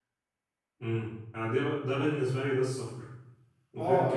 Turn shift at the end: Yes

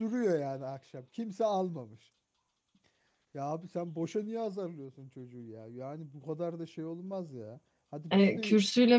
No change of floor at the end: No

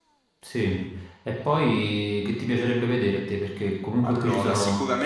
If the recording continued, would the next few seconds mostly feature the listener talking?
Yes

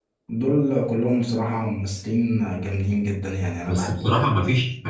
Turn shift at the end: Yes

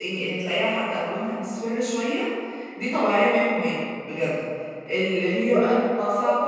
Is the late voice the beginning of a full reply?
No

